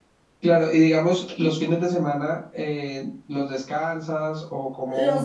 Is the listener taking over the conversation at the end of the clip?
Yes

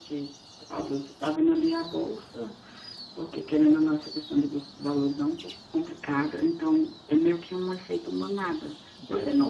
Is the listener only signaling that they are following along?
Yes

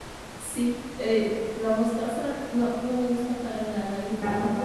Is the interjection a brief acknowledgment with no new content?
Yes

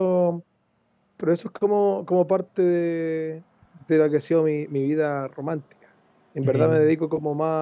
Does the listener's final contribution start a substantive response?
No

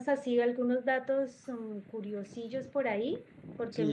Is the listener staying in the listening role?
No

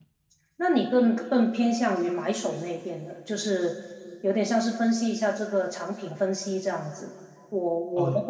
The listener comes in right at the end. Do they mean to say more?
No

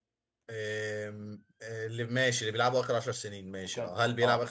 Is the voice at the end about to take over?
Yes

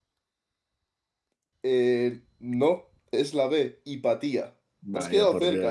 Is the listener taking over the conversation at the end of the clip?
Yes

